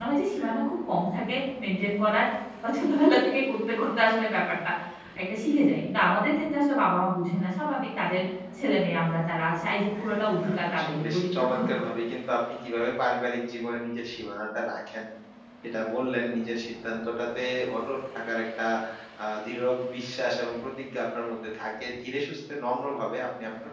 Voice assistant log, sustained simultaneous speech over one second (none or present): present